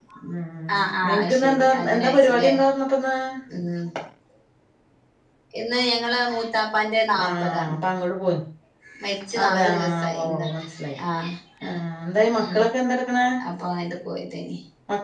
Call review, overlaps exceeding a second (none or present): present